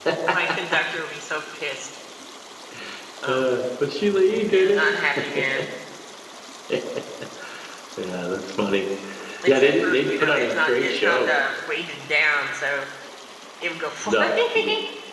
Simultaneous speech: Yes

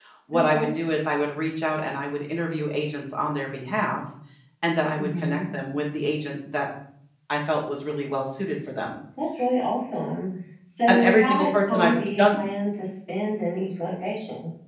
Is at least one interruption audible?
Yes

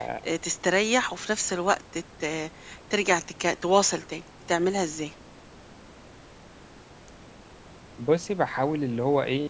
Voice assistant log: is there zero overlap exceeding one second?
Yes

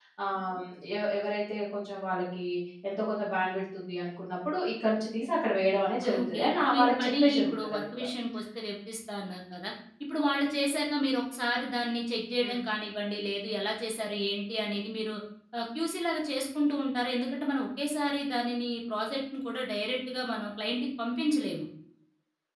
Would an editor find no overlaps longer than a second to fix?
No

